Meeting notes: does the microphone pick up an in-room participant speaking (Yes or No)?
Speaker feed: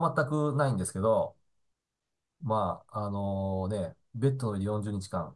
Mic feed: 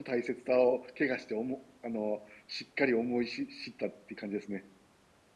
Yes